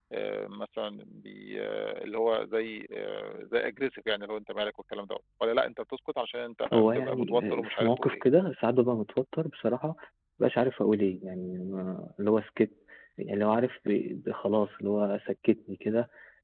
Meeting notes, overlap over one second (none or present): present